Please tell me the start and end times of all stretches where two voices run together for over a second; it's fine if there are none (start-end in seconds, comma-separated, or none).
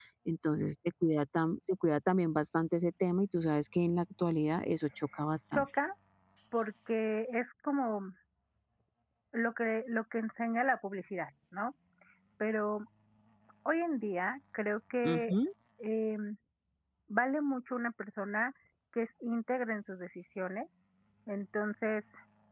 none